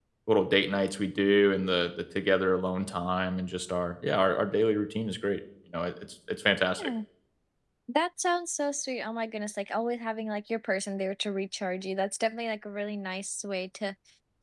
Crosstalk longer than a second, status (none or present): none